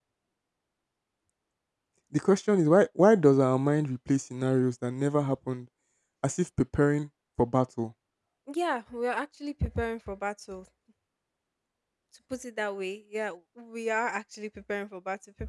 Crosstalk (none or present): none